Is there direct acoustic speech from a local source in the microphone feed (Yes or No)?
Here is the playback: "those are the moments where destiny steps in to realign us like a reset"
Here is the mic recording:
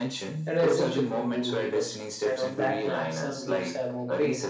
Yes